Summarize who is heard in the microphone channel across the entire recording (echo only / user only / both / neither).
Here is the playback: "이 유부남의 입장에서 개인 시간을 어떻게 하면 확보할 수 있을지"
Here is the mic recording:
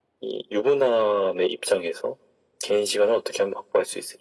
echo only